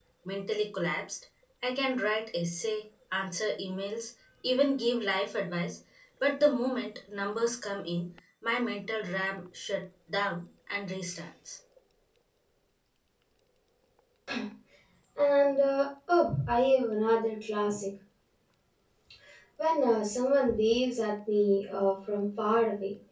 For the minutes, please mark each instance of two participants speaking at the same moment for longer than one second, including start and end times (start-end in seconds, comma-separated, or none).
none